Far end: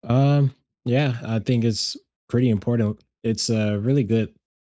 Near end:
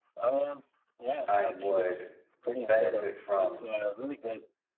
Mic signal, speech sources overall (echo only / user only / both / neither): both